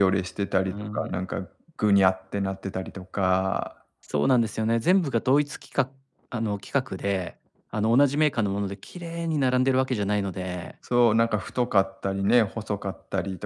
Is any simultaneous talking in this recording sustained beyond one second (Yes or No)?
No